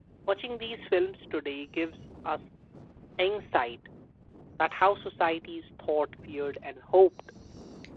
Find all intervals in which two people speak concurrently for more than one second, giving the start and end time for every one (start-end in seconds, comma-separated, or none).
none